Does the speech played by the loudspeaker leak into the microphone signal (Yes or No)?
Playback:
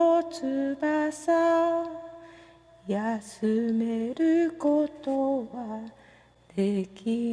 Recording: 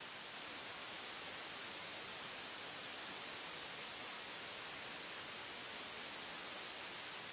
No